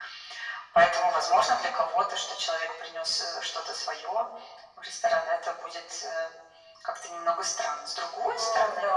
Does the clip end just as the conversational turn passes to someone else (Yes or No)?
Yes